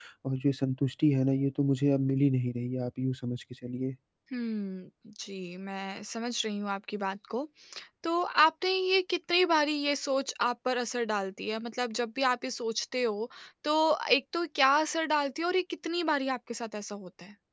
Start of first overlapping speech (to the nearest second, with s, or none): none